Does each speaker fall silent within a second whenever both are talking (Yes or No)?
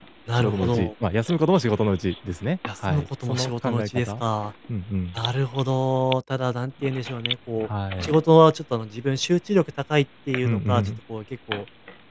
No